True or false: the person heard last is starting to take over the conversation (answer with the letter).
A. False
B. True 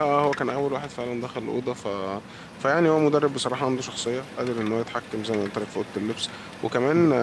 A